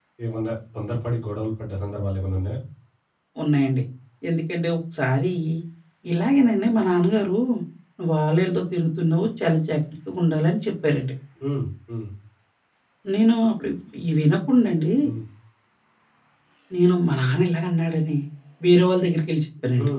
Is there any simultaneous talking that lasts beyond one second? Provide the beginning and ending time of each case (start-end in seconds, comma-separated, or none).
none